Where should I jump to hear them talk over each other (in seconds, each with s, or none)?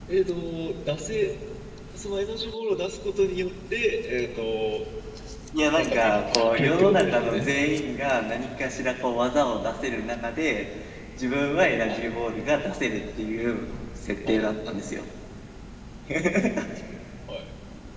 5.7 s